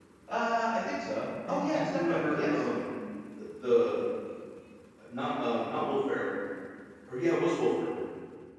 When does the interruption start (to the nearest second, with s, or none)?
1 s